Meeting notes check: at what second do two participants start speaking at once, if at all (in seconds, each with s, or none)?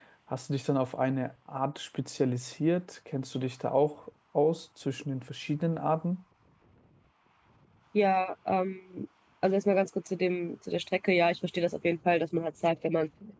none